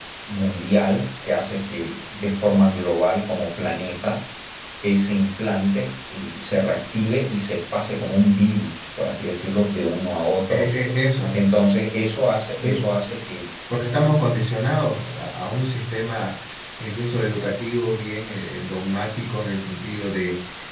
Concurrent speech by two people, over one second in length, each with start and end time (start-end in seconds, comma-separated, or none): none